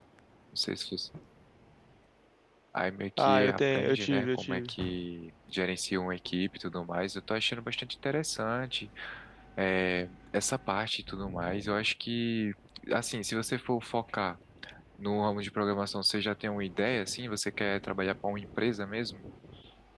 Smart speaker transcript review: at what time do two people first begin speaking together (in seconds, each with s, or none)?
3.2 s